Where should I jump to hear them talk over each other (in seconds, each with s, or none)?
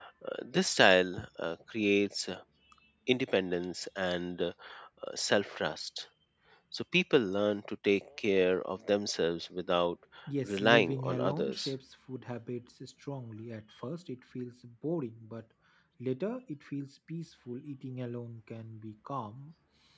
10.4 s